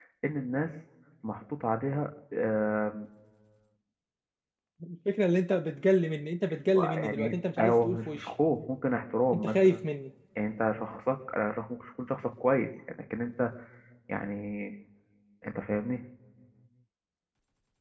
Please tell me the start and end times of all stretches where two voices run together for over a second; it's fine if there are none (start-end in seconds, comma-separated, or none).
7.0-8.3